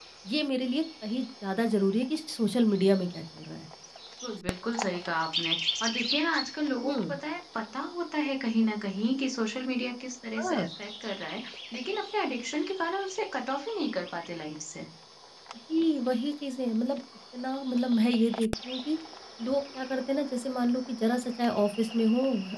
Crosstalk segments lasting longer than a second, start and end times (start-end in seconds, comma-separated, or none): none